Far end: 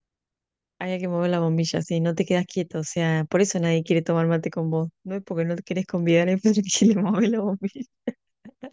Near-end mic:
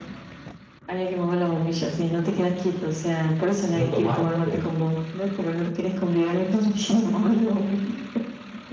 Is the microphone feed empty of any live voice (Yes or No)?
No